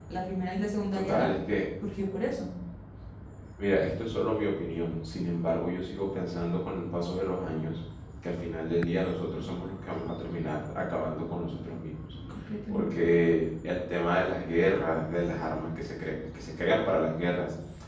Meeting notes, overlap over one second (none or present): none